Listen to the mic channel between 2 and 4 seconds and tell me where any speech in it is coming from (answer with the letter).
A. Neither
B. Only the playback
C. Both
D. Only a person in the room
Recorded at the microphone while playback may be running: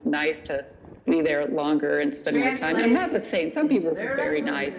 C